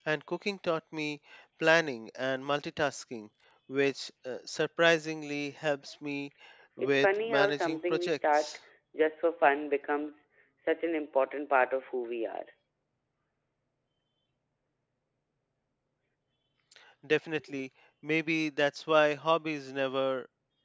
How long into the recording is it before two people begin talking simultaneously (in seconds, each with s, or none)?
6.8 s